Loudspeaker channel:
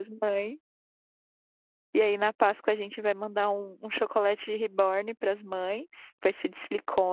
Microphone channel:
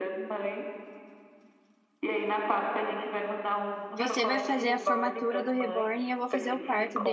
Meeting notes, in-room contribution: present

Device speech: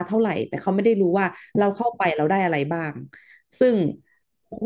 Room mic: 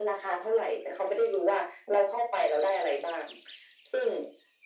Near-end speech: none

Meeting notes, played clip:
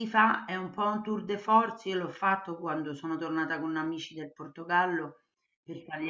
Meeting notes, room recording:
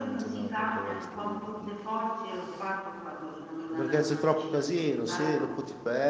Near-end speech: present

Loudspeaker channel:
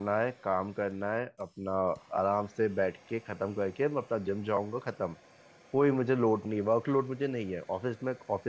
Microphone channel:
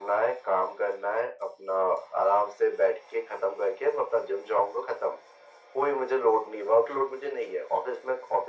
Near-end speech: none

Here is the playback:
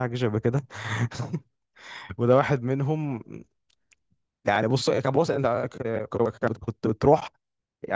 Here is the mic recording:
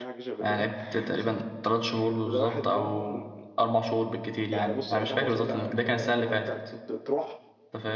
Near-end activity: present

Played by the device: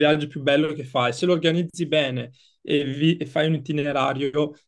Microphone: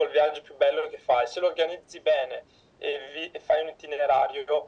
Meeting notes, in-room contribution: none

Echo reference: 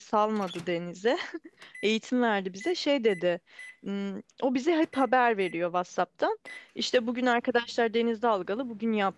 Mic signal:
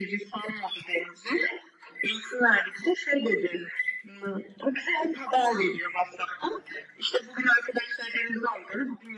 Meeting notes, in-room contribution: none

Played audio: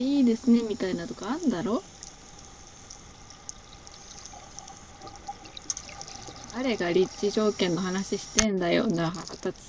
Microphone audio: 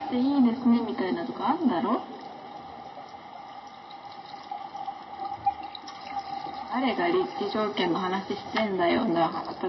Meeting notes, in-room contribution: none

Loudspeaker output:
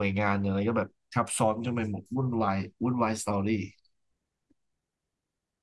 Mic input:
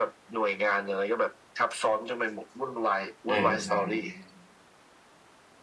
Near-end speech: present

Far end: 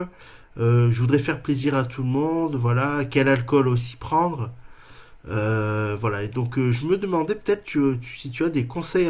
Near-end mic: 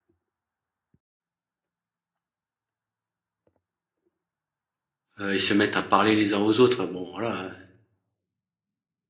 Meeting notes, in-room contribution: present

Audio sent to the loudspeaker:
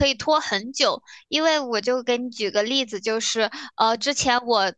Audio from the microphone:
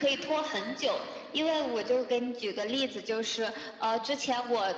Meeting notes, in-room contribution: none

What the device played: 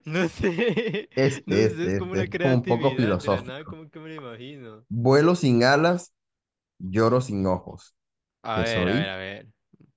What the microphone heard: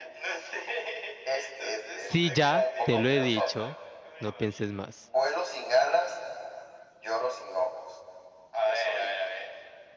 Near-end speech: present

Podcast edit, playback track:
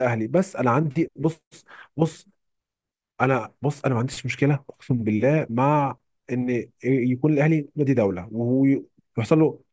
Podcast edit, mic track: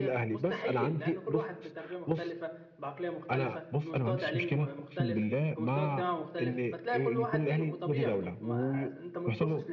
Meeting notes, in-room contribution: present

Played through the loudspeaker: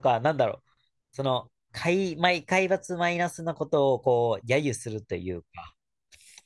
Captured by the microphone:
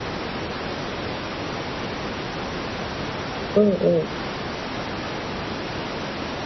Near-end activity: present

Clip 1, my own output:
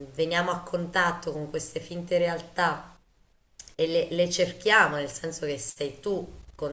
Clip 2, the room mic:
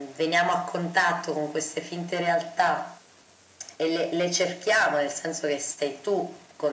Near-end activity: none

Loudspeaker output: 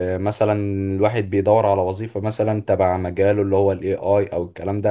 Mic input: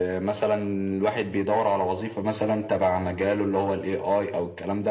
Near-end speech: none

